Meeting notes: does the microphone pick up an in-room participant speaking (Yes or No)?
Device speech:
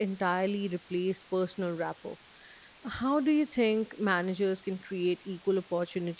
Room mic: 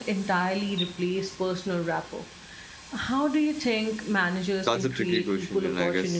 Yes